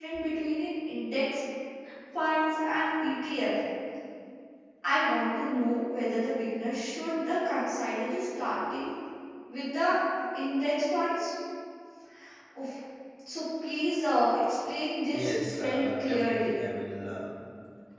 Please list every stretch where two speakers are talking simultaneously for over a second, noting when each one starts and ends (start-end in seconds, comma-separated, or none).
15.1-16.6